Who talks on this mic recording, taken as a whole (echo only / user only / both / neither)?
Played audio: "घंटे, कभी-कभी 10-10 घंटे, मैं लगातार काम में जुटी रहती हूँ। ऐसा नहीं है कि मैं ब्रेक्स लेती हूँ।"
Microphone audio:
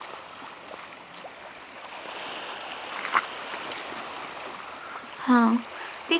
user only